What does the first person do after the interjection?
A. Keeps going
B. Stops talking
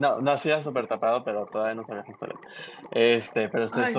A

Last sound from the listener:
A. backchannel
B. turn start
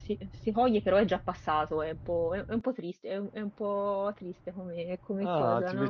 B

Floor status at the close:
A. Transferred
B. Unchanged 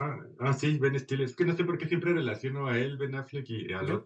B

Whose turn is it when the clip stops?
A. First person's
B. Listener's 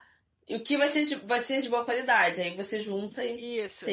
B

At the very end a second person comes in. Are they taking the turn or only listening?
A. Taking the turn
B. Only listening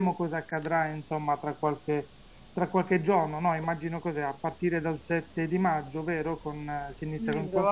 A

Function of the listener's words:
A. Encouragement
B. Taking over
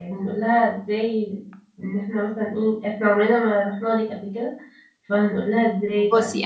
B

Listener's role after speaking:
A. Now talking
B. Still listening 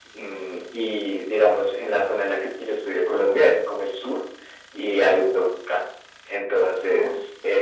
B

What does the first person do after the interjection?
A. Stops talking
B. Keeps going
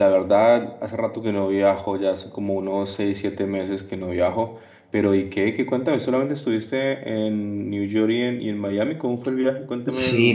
A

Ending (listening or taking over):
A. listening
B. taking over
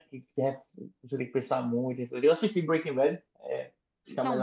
B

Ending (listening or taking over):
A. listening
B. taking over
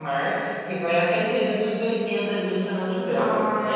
B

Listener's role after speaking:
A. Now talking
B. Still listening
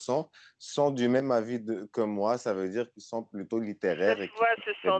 A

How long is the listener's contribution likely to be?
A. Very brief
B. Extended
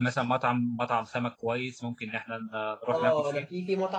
B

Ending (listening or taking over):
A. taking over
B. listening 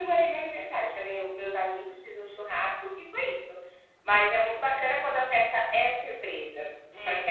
B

